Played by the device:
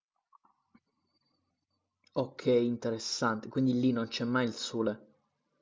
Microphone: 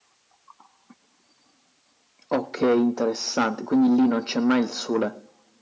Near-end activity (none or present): none